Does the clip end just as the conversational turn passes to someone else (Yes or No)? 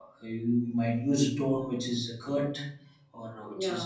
No